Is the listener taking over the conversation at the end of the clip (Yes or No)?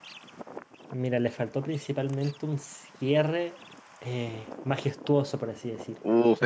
Yes